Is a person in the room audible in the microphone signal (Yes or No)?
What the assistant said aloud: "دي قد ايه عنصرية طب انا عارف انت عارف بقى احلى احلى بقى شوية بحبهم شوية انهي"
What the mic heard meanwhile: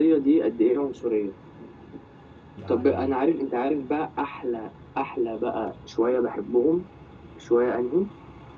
Yes